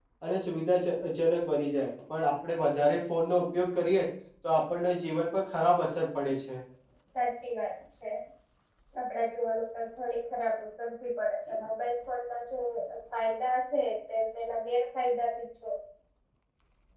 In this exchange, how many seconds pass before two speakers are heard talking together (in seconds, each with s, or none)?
none